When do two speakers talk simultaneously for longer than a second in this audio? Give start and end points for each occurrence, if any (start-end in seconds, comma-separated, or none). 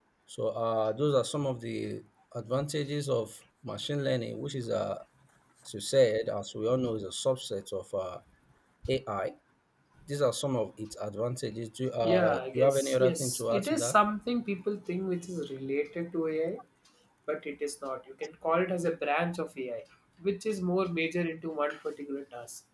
12.0-14.0